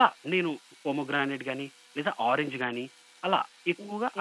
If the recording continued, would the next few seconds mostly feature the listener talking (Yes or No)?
Yes